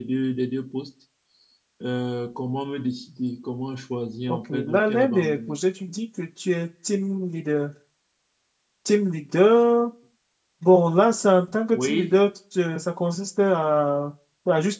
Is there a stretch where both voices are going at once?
Yes, from 4.3 s

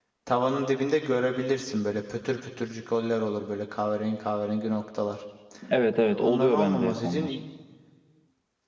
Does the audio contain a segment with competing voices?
Yes, from 6.0 s

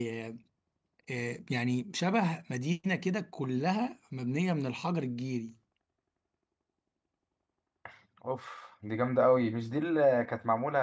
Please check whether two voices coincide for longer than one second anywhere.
No

